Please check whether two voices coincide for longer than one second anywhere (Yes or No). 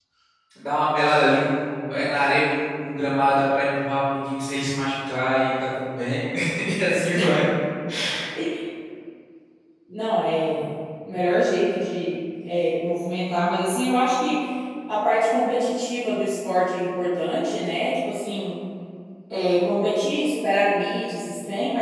No